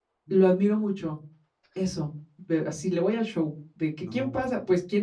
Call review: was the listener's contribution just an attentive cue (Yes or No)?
Yes